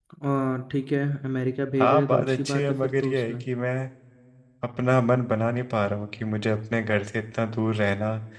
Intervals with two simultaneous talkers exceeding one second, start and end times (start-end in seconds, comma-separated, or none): 1.8-3.4